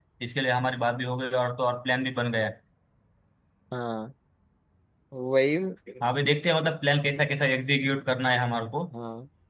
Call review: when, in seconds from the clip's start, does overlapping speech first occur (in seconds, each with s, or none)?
none